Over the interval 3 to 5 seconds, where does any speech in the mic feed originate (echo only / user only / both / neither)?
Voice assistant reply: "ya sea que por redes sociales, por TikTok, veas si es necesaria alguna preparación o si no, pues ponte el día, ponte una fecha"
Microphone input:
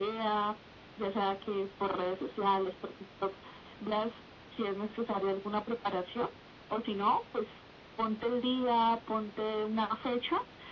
echo only